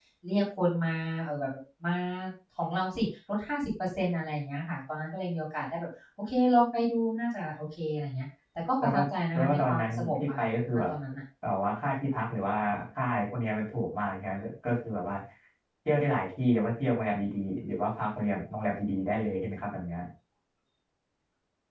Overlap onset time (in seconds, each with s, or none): 8.8 s